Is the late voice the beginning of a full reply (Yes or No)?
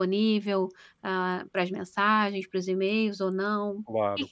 Yes